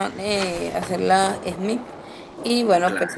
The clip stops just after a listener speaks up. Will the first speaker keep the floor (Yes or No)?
Yes